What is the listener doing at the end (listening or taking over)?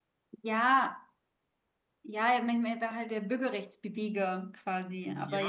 taking over